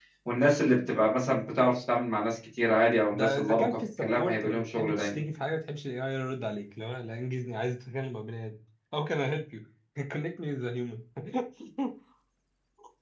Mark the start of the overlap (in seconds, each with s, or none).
3.1 s